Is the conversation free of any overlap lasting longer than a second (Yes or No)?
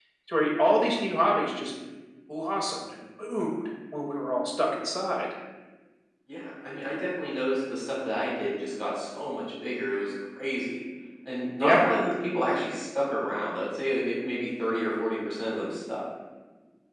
Yes